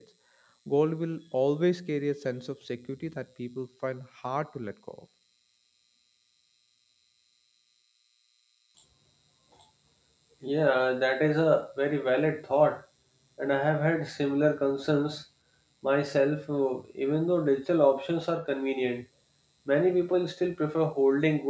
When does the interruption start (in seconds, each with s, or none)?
none